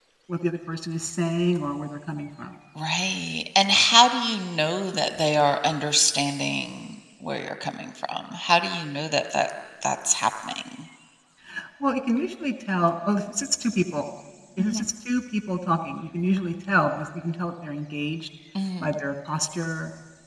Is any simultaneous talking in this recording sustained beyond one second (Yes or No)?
No